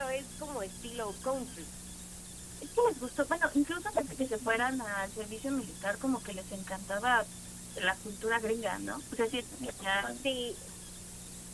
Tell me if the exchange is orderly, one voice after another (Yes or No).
Yes